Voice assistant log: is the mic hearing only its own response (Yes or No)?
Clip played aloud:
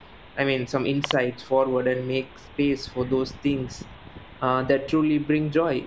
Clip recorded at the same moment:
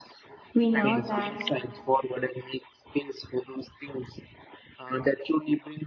No